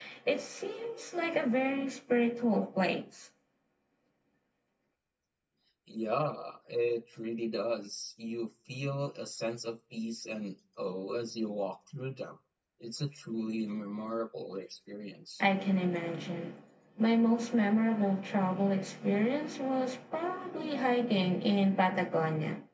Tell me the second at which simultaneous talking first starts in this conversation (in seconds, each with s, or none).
none